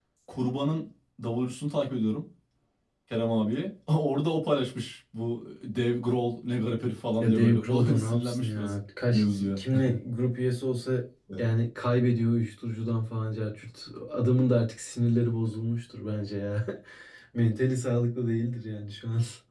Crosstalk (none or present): present